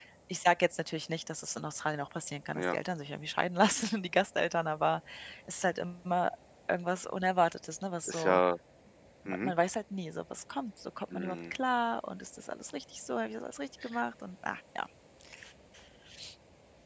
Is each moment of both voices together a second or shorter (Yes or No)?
Yes